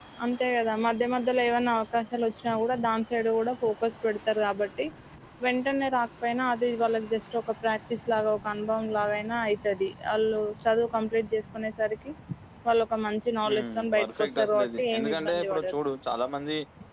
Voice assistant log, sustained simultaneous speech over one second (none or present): present